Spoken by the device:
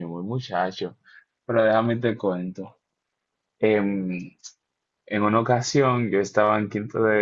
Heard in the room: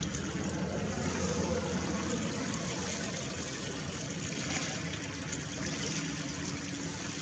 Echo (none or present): none